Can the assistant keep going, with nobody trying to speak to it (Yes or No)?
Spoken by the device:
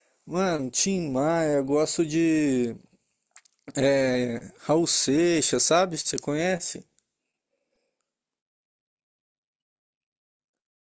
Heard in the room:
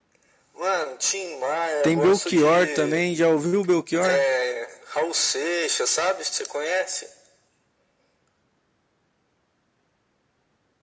No